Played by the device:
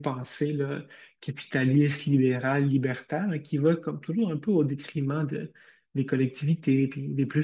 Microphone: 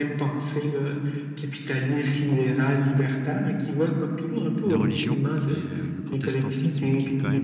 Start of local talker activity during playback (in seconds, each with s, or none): 4.7 s